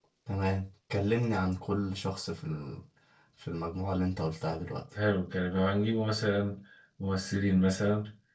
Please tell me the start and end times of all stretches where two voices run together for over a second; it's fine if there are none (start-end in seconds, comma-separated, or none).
none